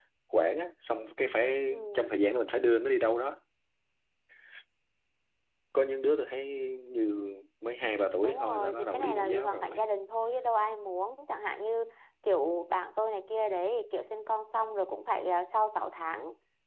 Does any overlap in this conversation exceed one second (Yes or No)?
Yes